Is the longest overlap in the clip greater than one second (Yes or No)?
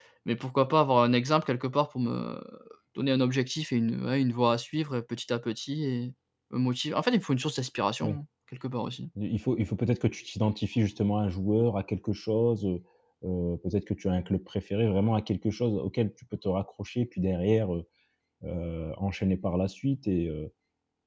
No